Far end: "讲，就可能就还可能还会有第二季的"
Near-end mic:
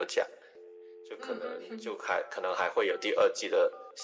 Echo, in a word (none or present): present